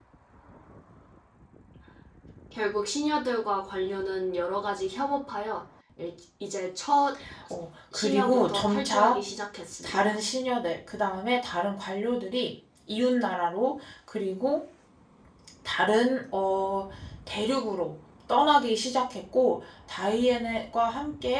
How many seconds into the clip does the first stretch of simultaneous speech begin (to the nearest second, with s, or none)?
8 s